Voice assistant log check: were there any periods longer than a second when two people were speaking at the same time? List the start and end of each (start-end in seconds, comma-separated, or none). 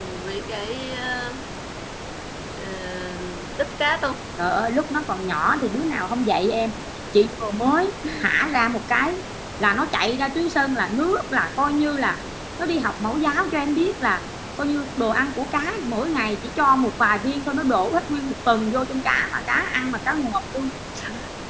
none